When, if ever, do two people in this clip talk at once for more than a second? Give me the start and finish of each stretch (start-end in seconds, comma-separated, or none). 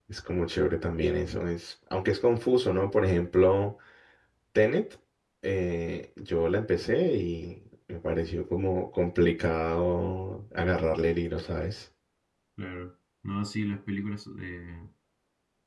none